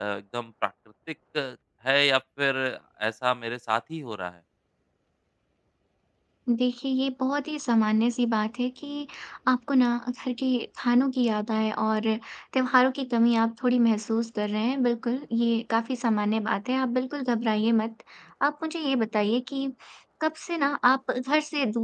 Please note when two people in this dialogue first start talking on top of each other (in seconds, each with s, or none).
none